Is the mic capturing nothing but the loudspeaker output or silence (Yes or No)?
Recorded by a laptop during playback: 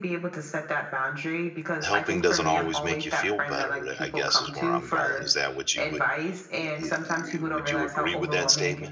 No